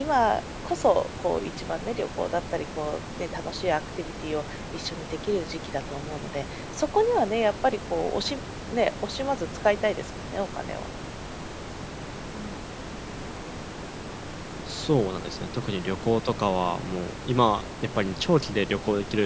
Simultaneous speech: No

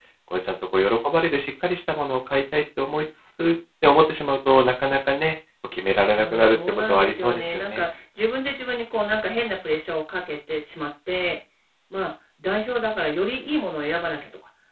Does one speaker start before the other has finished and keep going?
Yes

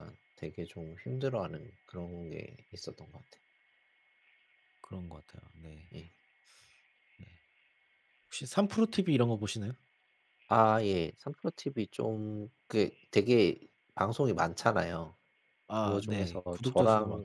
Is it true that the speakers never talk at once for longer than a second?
No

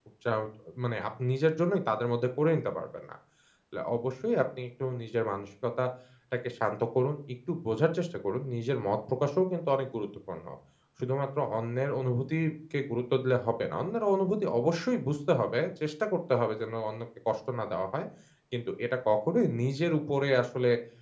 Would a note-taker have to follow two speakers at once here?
No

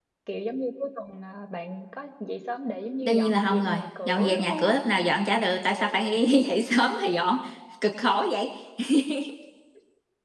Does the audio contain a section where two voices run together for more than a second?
Yes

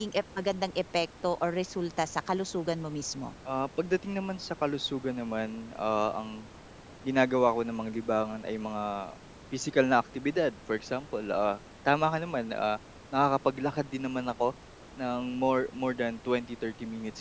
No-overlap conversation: Yes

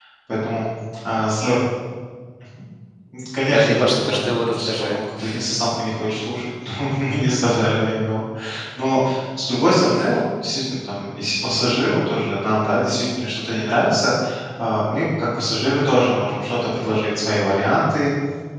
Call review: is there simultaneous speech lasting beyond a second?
Yes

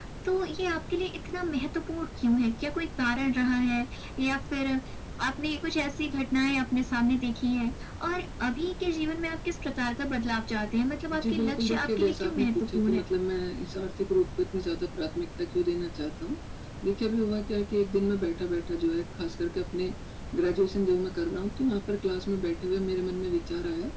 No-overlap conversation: No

